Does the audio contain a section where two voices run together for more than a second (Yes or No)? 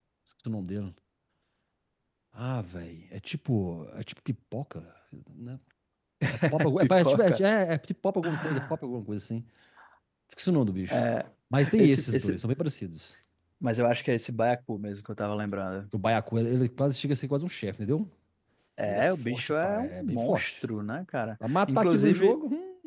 Yes